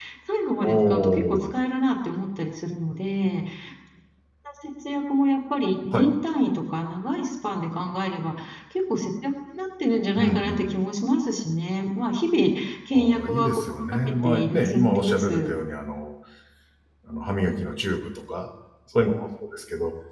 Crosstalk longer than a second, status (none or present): present